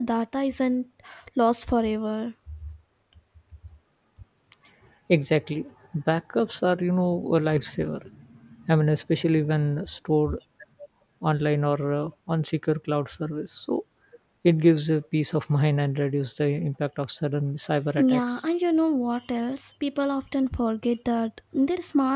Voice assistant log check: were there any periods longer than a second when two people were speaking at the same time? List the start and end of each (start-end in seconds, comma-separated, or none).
none